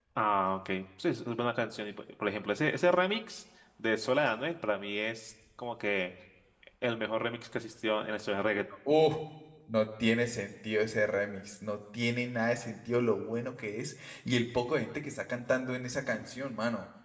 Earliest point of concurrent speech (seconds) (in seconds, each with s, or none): none